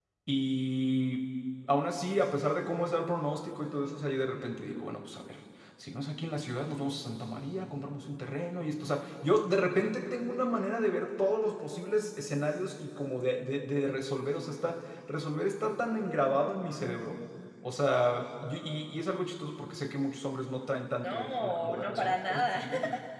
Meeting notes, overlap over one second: present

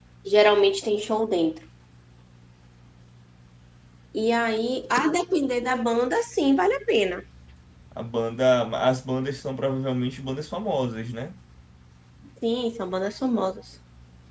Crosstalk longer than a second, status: none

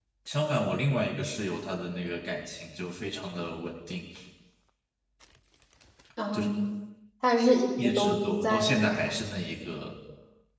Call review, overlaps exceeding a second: present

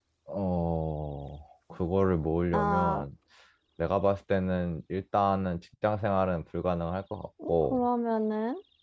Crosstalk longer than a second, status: none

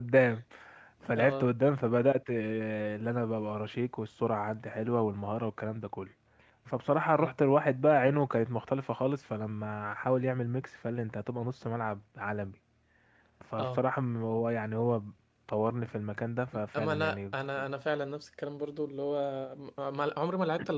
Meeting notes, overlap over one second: none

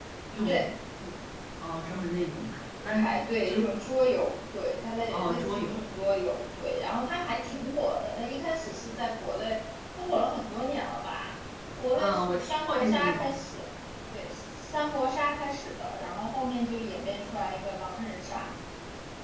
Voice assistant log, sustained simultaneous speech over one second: present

